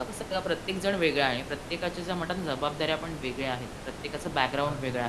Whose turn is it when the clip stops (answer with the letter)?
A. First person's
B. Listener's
A